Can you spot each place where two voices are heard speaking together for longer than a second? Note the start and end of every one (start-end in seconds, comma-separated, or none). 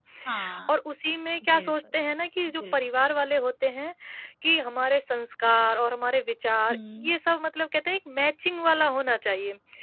none